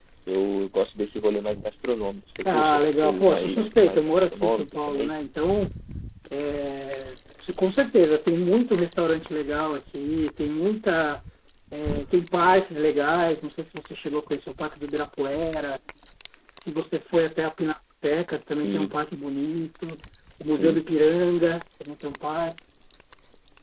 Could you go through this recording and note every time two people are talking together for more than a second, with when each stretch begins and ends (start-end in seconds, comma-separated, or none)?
2.5-5.2